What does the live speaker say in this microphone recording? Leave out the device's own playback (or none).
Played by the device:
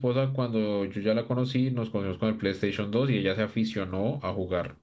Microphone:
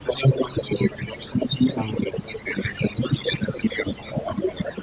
también.